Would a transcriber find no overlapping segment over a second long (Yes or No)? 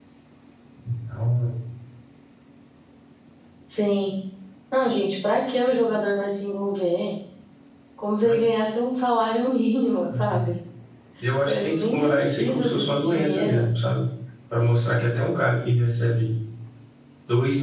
No